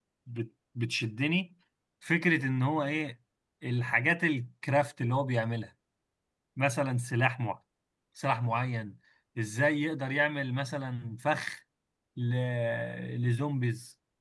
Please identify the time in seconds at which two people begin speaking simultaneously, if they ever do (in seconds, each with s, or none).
none